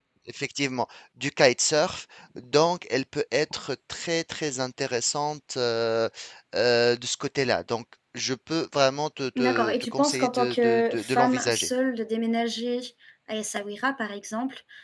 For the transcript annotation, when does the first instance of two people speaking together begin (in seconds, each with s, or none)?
9.3 s